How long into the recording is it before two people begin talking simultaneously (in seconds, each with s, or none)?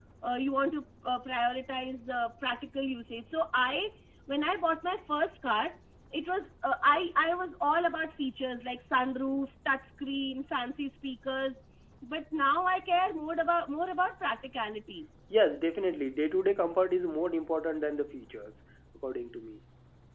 none